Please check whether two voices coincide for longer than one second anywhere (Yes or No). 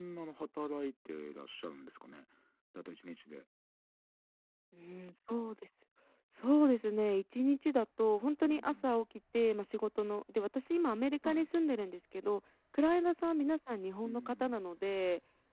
No